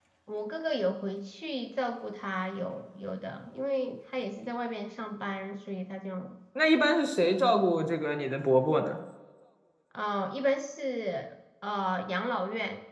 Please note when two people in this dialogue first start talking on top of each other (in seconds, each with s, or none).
none